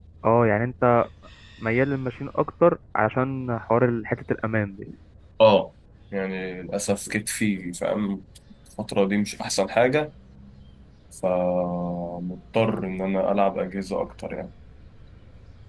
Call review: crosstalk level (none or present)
none